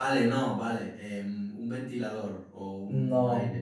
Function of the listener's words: taking over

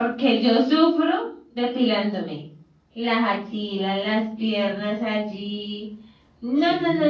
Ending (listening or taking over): listening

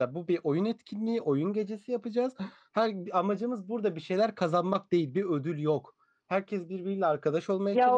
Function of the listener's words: taking over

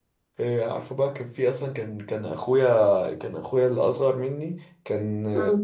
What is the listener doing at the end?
listening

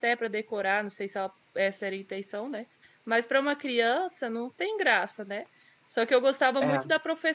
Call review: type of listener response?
listening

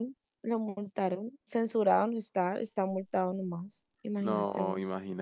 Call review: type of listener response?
taking over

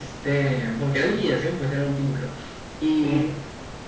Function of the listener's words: listening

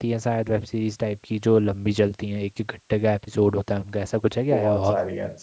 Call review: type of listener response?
taking over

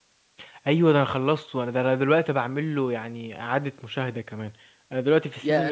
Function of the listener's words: listening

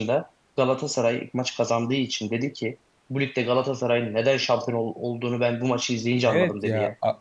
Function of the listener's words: taking over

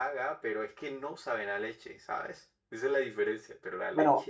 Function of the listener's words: taking over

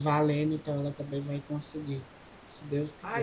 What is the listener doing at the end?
taking over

